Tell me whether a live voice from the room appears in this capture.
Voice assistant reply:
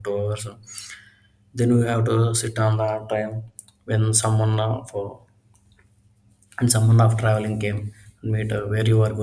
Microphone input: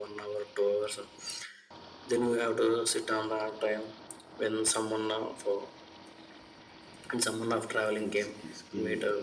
Yes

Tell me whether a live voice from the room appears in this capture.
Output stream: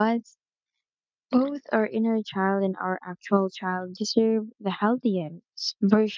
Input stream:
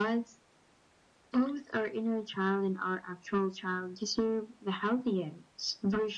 No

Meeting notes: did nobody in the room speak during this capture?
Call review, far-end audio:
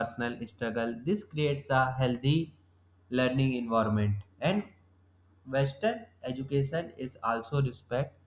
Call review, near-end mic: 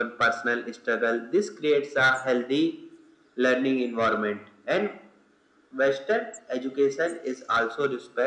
Yes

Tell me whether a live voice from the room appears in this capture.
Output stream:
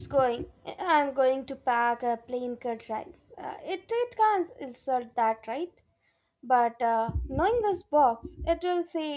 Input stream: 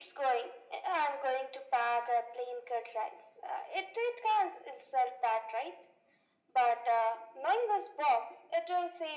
No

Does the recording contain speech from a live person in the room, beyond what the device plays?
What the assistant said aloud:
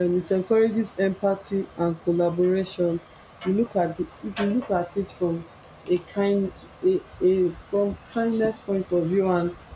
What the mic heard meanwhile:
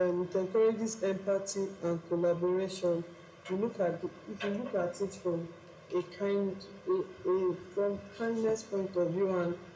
No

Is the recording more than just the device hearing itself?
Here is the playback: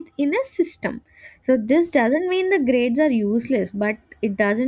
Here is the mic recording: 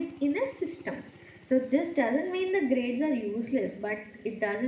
No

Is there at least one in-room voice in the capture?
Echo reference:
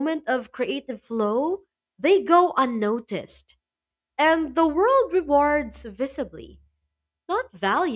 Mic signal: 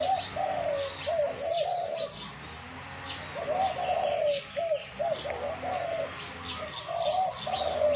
No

